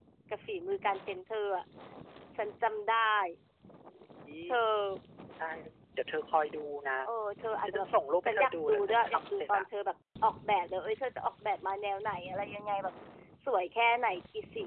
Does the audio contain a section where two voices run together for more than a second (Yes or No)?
Yes